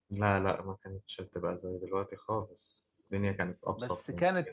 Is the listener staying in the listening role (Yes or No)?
No